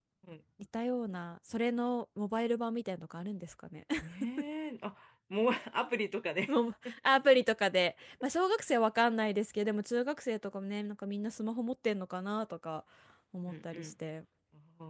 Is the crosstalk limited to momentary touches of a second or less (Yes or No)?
Yes